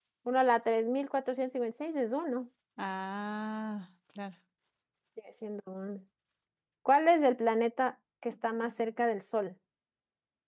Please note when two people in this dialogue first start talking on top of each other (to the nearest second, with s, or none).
none